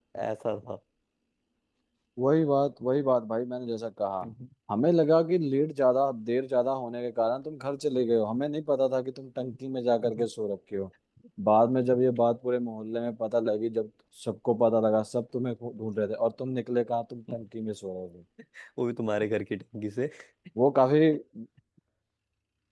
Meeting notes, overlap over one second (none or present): none